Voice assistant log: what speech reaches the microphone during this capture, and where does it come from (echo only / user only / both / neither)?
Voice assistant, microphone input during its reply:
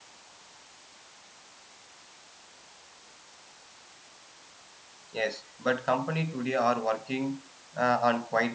user only